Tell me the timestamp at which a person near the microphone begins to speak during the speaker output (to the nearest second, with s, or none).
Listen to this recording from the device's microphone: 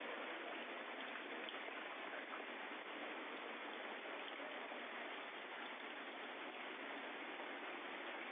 none